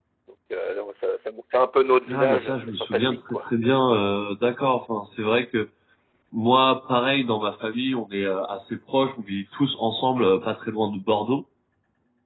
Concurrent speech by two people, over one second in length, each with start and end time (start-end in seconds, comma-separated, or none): 2.1-3.4